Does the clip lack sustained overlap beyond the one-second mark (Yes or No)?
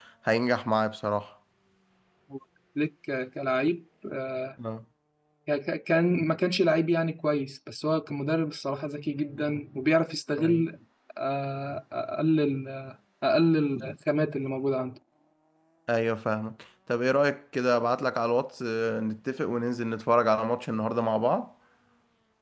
Yes